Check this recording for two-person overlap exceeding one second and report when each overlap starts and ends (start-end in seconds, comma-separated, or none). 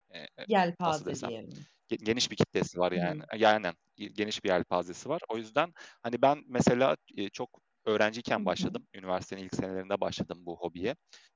none